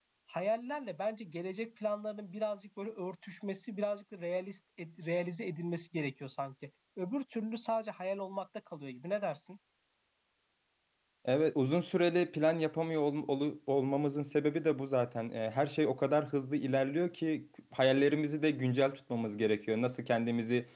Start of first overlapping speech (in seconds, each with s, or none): none